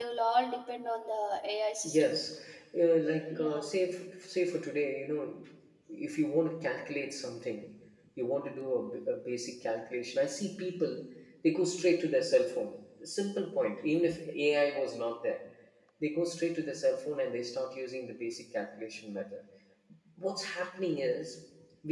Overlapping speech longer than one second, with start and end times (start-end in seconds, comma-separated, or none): none